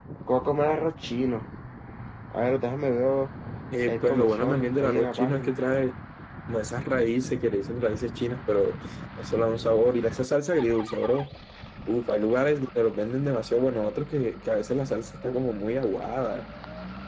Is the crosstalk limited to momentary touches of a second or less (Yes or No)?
No